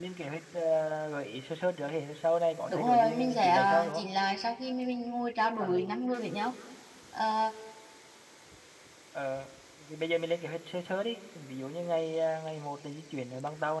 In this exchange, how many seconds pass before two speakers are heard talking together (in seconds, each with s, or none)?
2.7 s